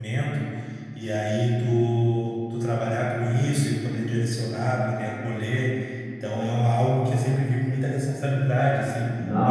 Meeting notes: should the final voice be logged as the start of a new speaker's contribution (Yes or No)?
Yes